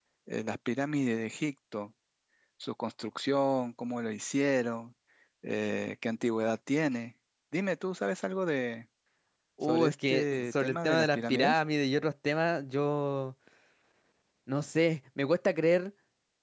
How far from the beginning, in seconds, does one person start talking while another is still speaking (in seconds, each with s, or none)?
9.6 s